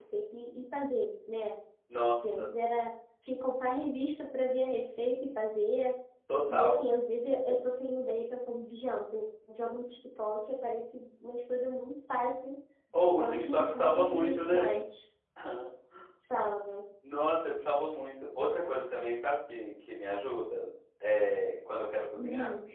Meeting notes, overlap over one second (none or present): present